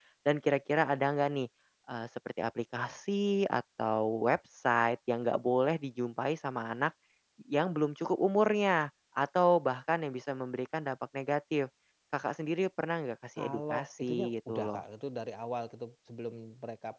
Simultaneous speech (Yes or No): Yes